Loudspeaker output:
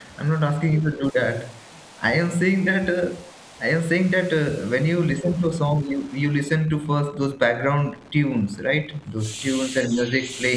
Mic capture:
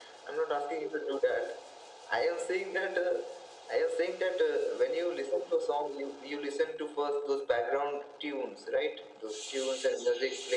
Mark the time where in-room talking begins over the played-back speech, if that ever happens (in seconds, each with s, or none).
none